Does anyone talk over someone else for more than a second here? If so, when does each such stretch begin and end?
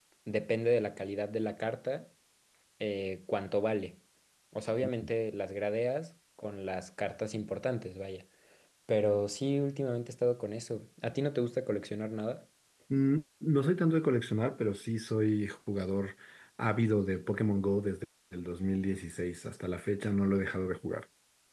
none

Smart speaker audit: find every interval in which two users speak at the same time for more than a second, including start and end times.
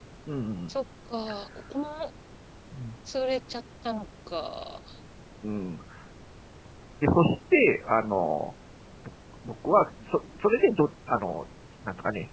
none

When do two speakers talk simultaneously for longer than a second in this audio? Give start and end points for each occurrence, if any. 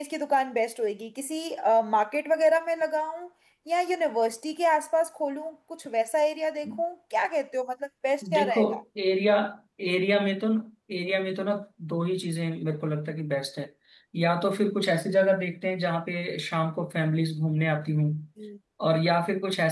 none

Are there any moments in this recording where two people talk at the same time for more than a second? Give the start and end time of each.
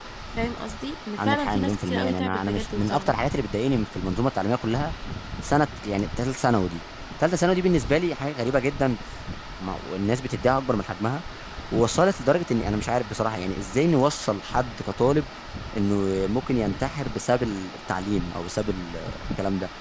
1.2-3.1

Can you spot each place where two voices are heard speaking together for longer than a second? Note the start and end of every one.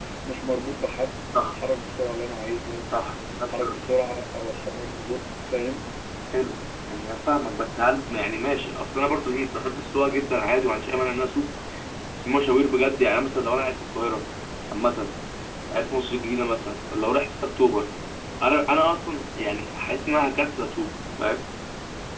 none

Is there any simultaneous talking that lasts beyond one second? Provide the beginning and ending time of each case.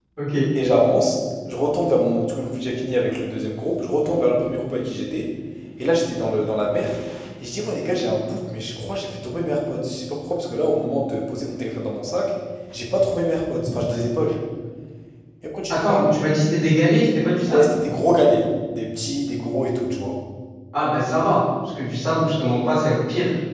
none

